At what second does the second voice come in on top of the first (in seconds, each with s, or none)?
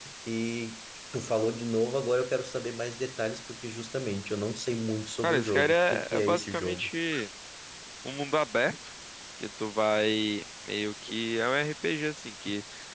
5.2 s